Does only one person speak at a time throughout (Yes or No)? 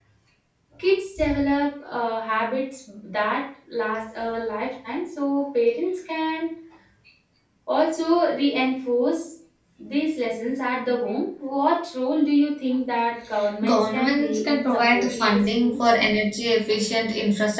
No